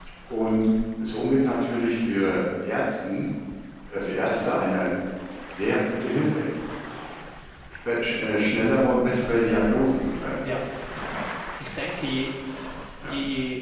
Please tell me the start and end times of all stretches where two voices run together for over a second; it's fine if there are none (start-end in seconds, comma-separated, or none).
none